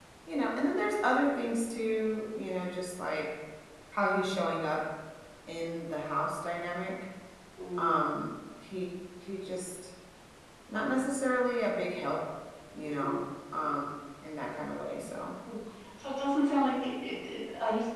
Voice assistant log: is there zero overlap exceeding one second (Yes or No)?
Yes